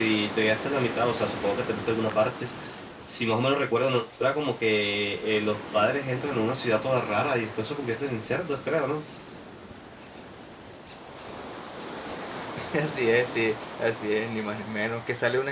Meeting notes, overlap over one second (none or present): none